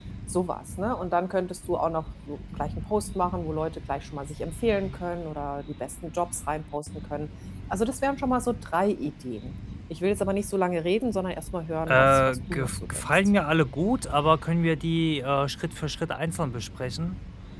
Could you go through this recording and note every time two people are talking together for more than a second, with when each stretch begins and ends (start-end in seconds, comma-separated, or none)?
11.9-13.2